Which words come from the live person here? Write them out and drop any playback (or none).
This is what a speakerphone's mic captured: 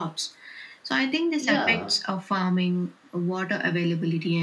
yeah